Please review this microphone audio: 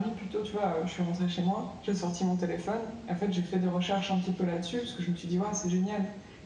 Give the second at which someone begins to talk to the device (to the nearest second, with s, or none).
none